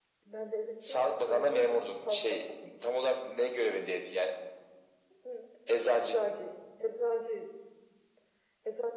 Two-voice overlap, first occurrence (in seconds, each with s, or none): 0.9 s